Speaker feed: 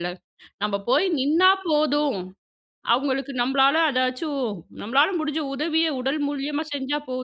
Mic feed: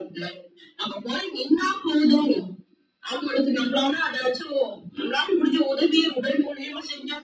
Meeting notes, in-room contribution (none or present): none